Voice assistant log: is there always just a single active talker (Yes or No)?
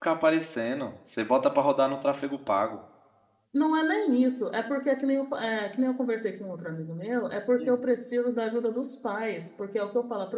Yes